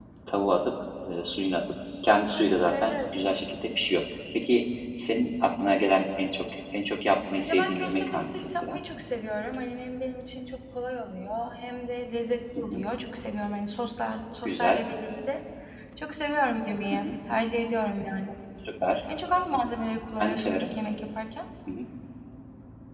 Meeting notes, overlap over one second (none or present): present